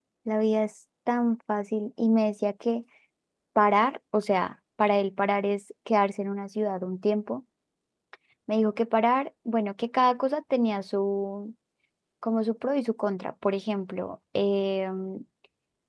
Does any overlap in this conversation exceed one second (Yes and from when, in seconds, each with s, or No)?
No